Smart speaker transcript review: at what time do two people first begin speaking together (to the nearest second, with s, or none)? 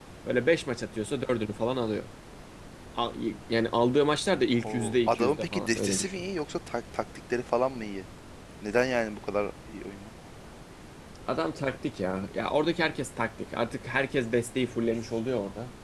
5 s